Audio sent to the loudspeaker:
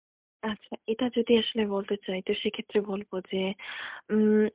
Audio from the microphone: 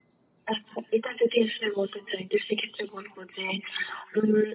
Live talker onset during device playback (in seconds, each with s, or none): none